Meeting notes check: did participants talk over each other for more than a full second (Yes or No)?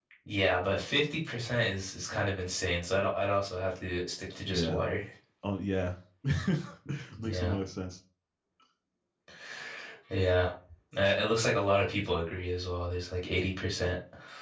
No